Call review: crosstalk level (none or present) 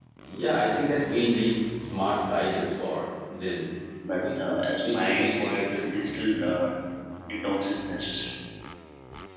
present